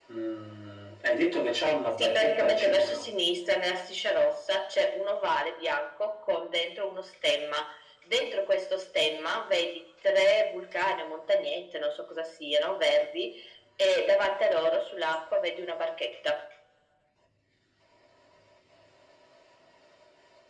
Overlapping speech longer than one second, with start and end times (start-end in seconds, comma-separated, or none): 1.9-3.1